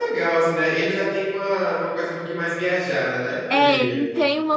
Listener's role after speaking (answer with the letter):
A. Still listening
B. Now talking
B